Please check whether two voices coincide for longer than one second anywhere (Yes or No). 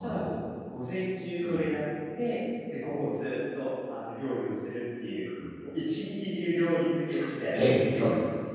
No